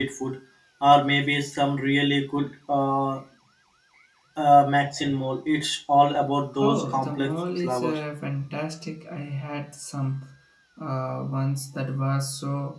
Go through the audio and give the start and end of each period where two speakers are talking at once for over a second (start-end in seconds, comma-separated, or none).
6.6-8.0